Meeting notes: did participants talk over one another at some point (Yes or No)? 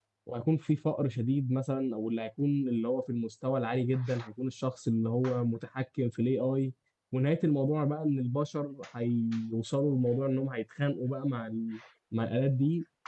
No